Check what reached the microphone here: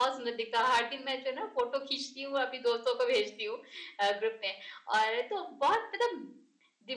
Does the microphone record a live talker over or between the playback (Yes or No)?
Yes